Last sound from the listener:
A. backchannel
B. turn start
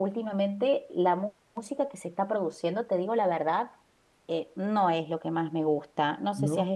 A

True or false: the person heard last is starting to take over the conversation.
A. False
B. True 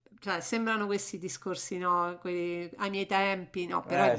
A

